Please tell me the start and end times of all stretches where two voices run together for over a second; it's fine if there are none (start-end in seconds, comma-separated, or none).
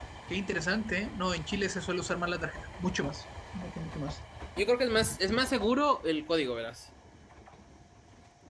none